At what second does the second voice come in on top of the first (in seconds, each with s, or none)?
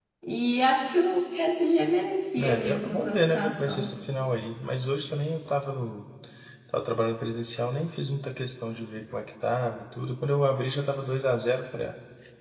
2.4 s